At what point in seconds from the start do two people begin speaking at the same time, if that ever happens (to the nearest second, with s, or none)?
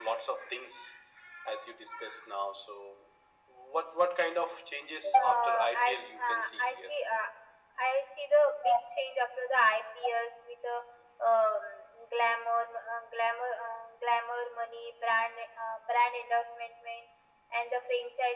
5 s